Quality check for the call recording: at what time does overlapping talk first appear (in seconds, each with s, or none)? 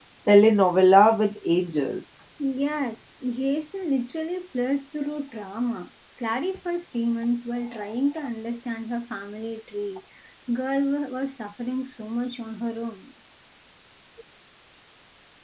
none